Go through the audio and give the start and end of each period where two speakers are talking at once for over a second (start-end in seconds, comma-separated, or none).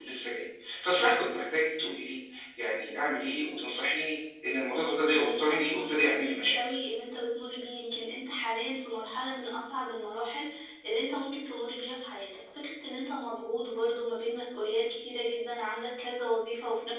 5.1-6.6